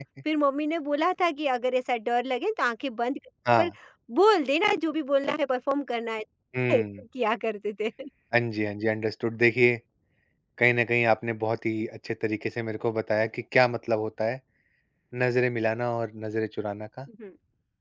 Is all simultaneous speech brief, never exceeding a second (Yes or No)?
Yes